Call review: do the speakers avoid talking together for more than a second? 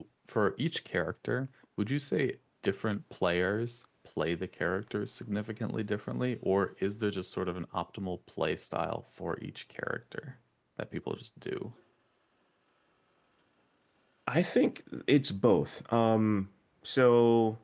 Yes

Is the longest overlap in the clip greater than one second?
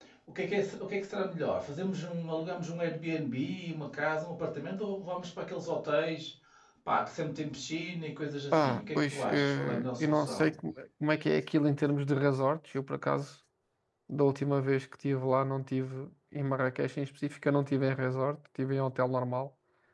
Yes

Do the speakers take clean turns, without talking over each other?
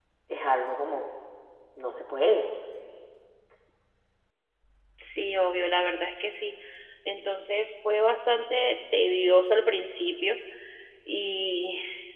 Yes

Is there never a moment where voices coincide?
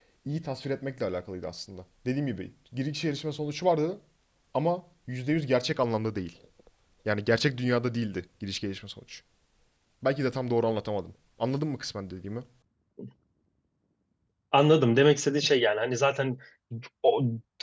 Yes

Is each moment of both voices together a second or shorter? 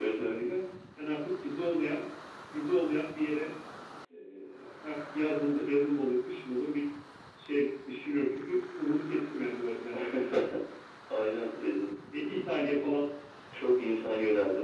Yes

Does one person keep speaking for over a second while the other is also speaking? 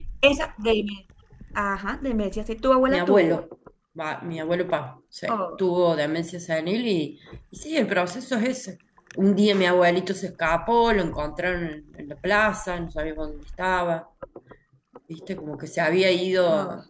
No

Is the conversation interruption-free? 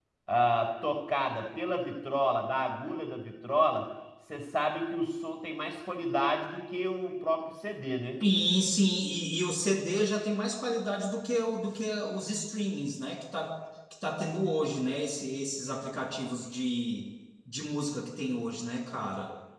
Yes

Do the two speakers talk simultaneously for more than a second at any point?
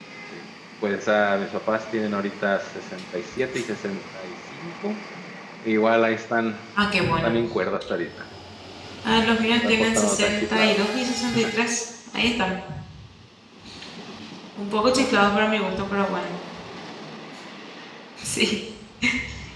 Yes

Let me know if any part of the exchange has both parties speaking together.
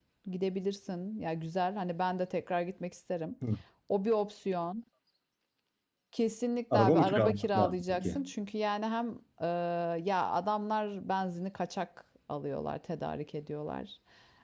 Yes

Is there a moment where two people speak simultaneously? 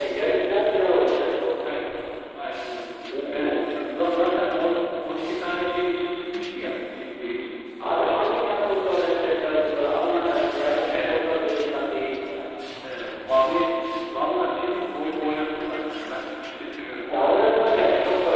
Yes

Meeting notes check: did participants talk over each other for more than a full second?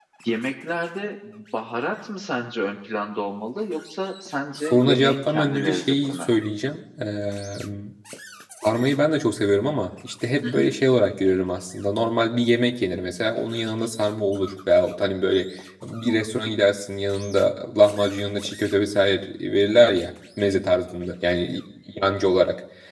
Yes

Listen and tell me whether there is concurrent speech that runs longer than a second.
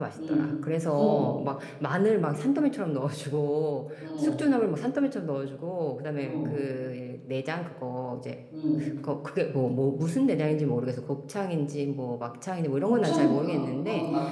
Yes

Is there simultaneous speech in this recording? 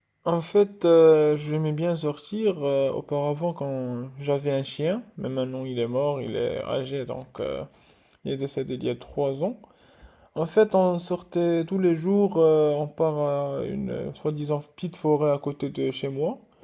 No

